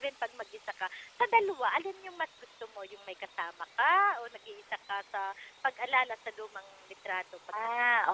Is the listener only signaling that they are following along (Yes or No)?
No